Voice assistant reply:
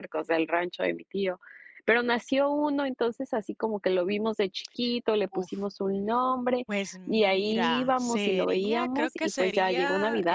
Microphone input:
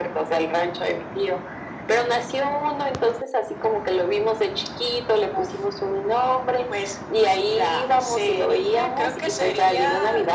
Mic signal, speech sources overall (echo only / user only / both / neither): echo only